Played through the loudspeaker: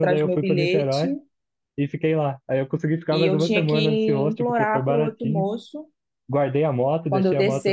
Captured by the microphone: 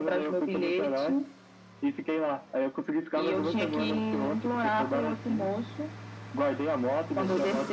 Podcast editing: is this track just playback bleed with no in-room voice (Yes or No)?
Yes